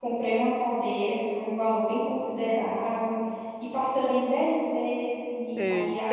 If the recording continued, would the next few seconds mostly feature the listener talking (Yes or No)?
Yes